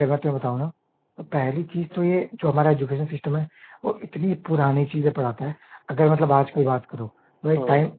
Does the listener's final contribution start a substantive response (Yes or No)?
No